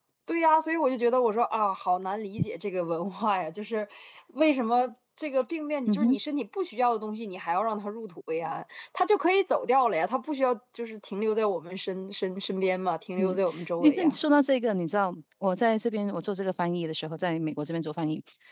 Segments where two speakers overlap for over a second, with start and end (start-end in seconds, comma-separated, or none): none